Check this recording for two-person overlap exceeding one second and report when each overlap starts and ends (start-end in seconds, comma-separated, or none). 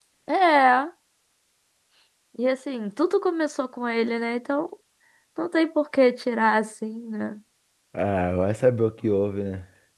none